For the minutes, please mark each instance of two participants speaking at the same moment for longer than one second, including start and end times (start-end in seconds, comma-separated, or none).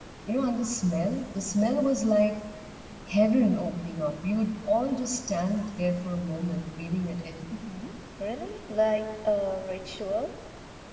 none